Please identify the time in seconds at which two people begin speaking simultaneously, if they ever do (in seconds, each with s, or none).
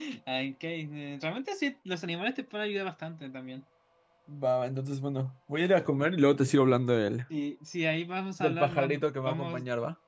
8.4 s